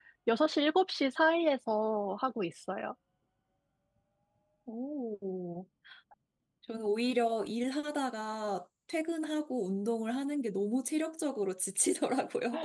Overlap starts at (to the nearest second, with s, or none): none